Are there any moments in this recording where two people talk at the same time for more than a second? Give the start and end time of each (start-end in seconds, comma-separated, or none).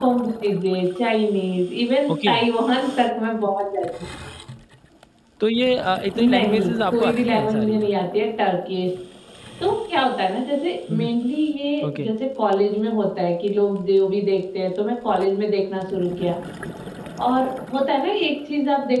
6.2-7.8